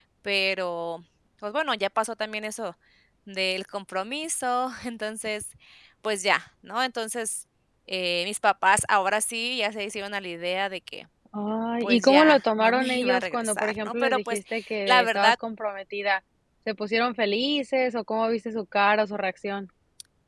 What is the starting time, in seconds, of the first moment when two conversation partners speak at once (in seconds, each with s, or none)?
11.8 s